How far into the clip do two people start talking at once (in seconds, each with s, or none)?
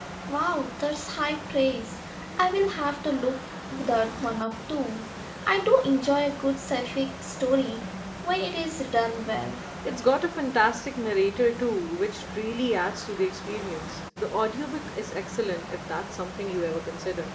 none